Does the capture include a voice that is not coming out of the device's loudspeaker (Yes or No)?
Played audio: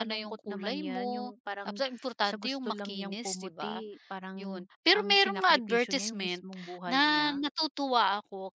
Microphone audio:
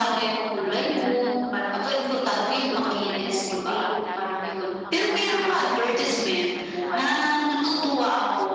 Yes